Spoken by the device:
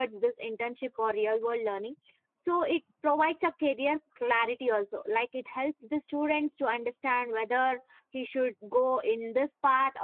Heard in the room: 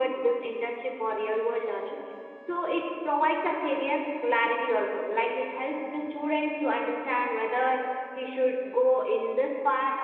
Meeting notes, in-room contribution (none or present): none